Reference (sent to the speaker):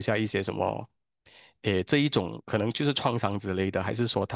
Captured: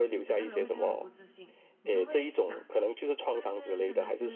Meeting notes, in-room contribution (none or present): present